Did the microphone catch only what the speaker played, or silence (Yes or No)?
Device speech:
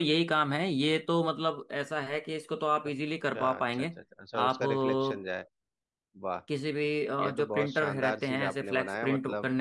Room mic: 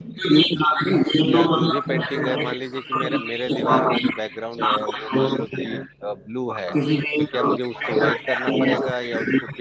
No